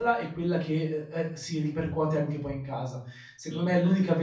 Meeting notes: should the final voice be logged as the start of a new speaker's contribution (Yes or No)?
No